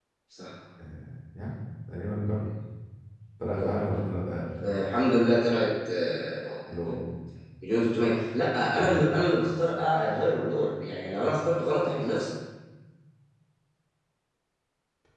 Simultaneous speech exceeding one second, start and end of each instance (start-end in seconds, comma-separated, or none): none